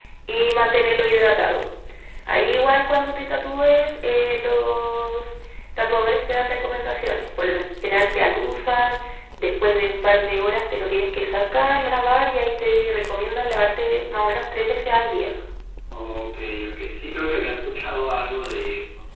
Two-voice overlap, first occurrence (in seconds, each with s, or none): none